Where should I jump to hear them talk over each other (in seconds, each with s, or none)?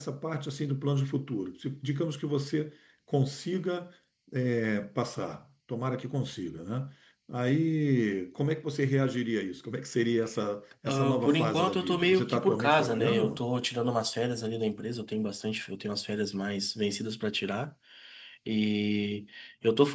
10.8 s